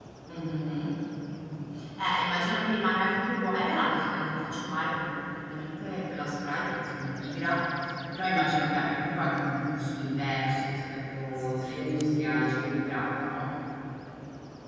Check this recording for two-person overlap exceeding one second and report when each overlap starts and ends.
11.4-13.0

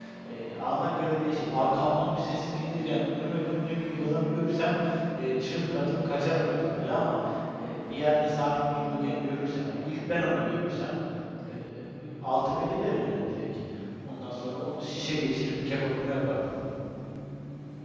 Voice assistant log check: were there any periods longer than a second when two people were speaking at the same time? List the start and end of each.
none

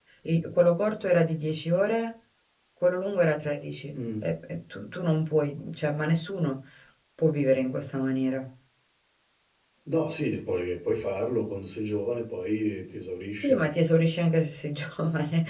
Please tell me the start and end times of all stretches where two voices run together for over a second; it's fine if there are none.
none

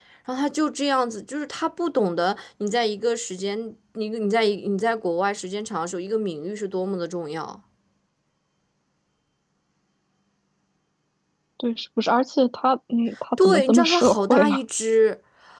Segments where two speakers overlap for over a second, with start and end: 13.4-14.6

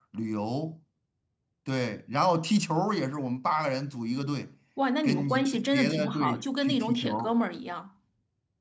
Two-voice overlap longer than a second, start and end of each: 5.0-7.4

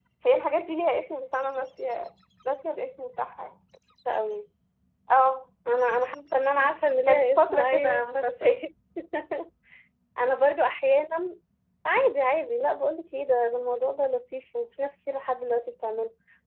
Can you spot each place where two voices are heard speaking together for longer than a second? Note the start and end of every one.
7.1-8.5

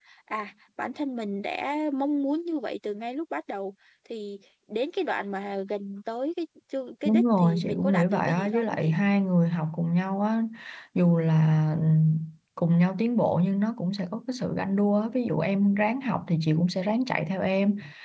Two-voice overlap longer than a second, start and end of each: 7.0-8.9

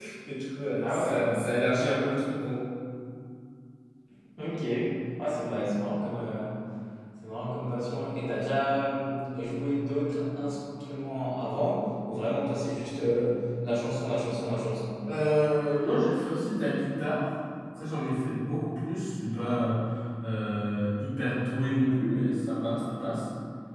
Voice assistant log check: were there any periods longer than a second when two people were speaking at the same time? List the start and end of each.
none

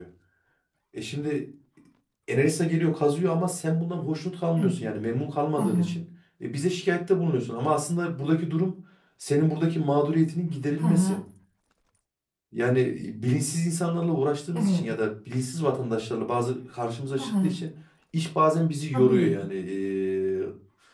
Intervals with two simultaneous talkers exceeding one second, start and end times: none

